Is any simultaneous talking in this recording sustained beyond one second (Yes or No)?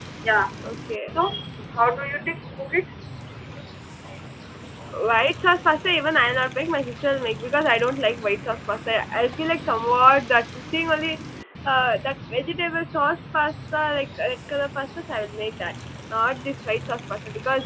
No